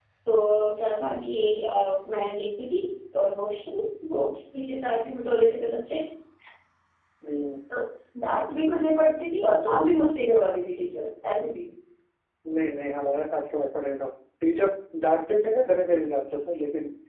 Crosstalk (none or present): none